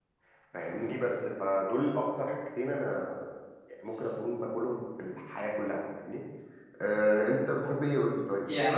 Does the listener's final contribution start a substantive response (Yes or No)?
Yes